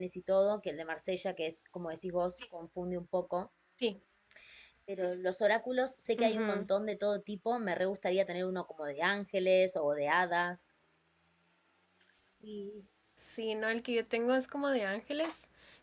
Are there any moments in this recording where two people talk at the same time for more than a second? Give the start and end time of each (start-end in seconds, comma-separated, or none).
none